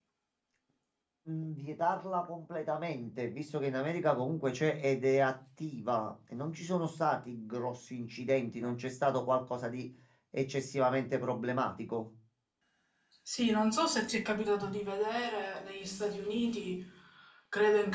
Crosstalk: none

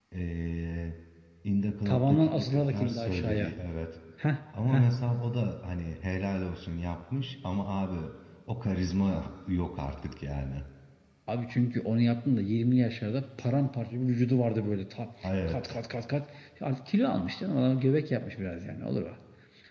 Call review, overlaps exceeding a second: present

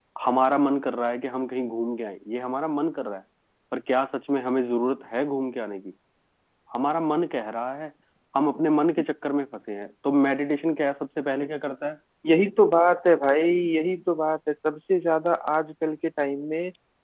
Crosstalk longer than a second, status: none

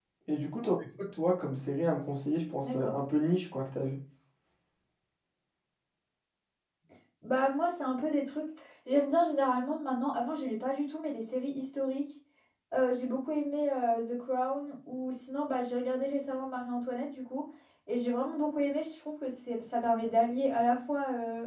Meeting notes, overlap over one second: none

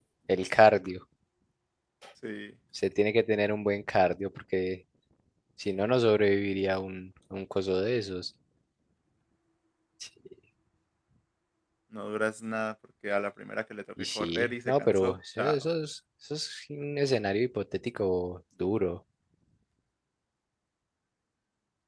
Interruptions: present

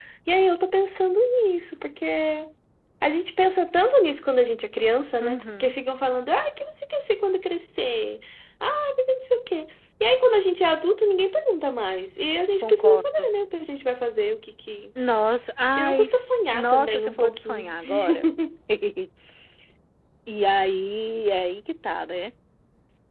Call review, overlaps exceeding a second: present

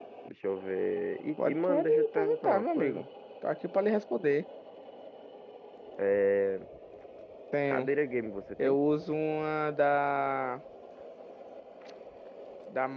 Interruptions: present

